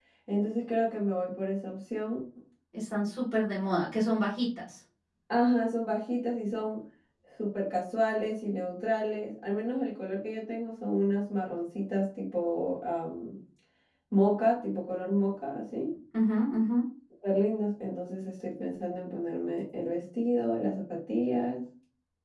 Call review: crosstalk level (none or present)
none